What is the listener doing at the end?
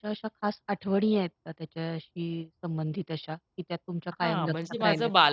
taking over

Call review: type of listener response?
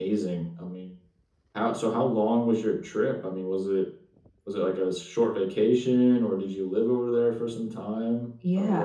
taking over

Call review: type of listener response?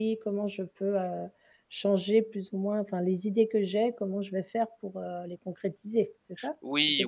taking over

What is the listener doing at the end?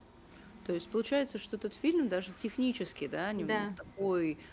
listening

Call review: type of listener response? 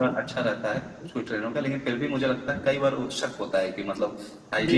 listening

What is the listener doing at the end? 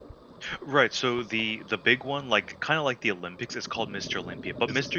listening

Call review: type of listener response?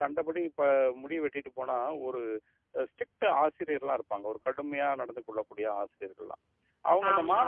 listening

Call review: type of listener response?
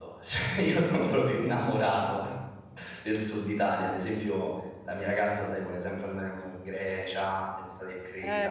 taking over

